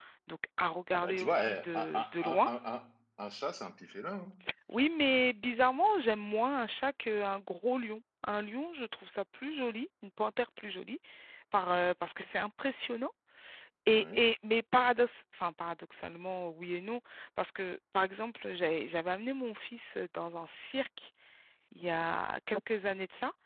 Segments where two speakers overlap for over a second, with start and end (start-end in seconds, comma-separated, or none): 0.9-2.5